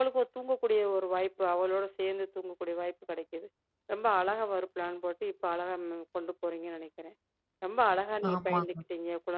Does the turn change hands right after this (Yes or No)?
No